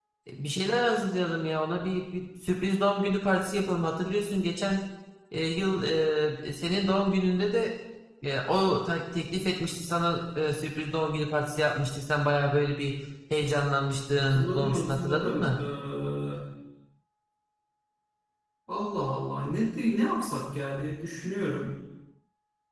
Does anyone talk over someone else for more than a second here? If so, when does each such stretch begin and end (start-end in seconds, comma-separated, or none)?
14.1-15.6